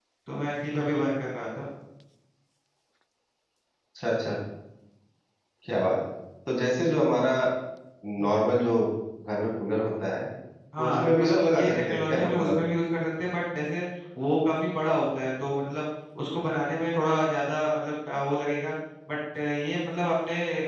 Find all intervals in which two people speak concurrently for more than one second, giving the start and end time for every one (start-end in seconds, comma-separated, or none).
10.8-12.6